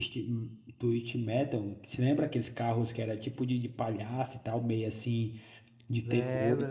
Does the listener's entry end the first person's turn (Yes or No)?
Yes